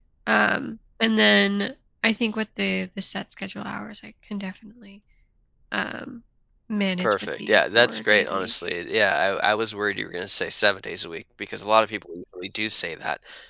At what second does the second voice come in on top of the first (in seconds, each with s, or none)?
7.0 s